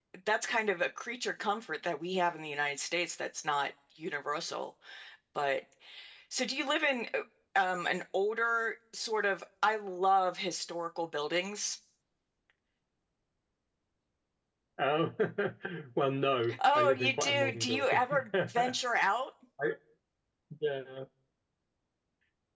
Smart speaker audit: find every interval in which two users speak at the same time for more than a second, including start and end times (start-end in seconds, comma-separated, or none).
16.8-18.8